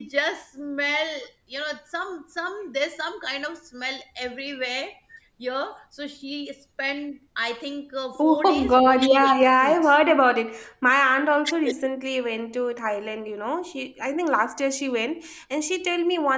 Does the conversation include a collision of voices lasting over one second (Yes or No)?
Yes